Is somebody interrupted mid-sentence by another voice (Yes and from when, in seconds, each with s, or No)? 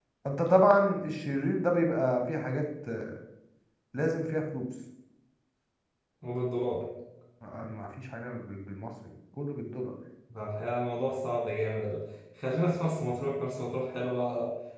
No